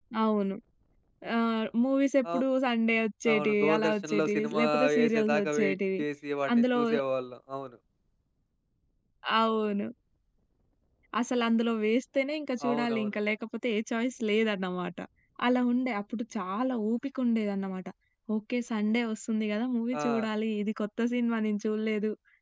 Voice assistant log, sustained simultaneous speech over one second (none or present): present